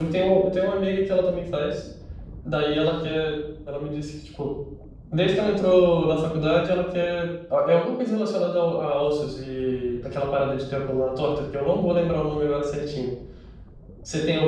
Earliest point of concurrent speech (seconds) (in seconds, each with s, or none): none